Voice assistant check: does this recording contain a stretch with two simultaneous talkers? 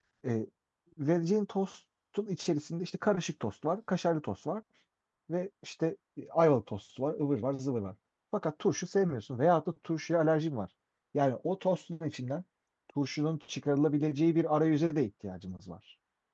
No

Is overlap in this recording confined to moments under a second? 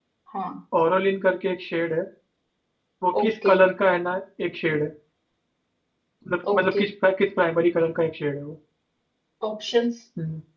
Yes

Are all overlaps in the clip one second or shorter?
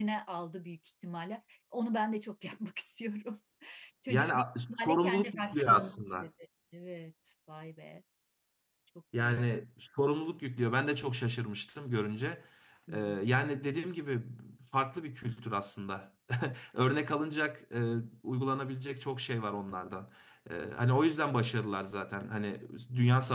No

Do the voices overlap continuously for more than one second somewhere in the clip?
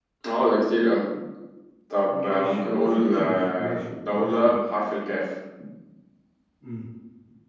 Yes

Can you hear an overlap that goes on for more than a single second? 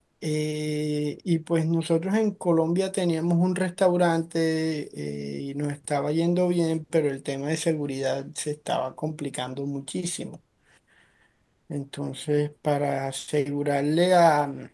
No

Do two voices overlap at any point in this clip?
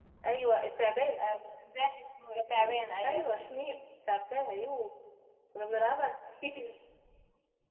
Yes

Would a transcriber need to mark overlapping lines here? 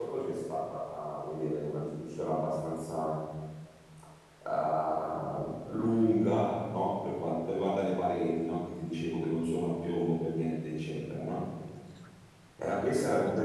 No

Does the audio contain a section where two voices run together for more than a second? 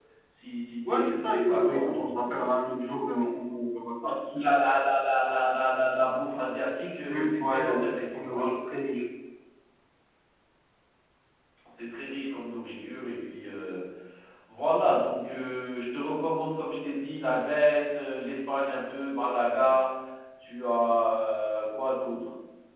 Yes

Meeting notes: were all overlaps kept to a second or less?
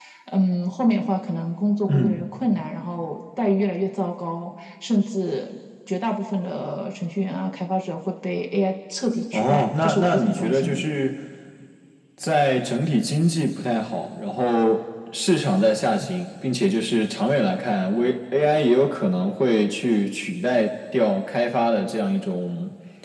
No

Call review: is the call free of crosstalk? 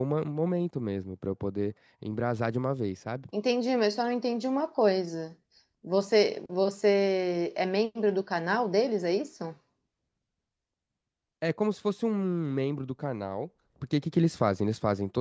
Yes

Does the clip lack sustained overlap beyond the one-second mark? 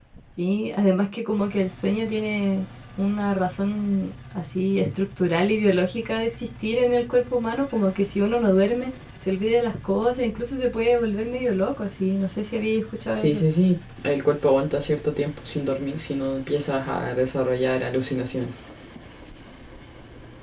Yes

